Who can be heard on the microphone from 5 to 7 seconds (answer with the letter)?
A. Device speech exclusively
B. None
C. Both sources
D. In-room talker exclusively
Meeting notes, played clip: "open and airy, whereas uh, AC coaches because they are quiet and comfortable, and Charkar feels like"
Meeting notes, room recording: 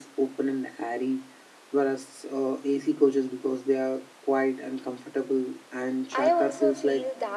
C